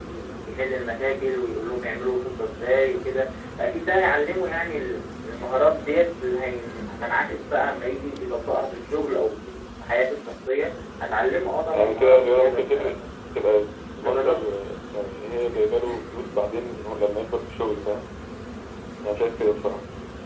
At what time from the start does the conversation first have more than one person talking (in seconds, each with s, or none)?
11.7 s